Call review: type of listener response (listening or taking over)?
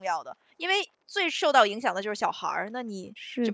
taking over